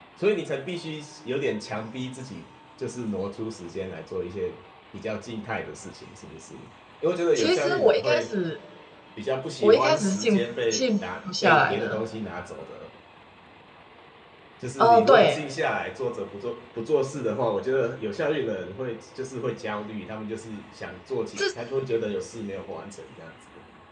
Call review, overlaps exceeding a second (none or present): present